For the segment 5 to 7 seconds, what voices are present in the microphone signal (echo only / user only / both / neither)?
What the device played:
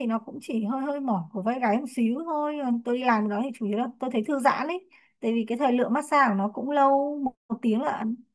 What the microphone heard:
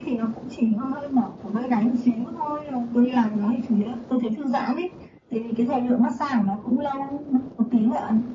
echo only